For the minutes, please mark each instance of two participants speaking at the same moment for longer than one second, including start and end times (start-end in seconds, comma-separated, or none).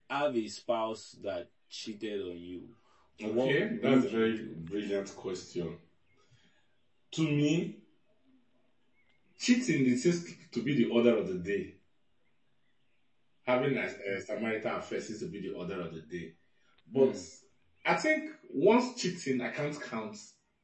3.2-4.6